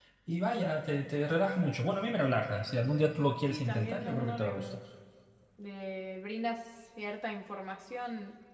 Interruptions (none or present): present